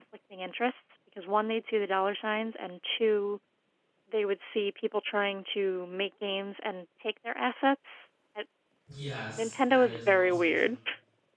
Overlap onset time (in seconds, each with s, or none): 9.4 s